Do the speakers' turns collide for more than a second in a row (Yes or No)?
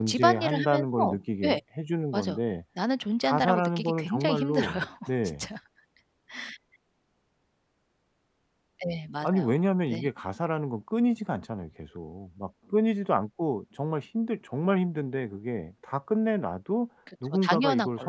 Yes